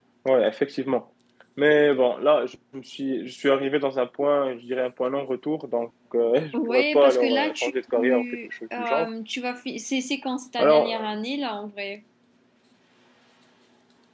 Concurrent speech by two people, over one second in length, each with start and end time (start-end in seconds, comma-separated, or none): 6.5-7.7